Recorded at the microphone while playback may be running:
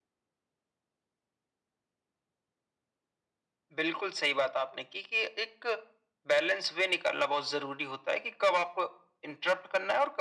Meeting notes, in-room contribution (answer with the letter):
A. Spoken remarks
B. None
B